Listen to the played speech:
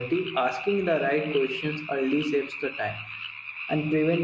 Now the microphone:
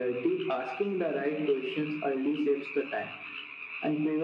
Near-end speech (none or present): none